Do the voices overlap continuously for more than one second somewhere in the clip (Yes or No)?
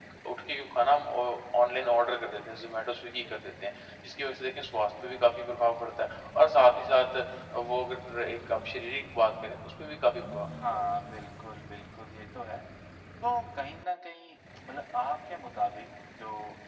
No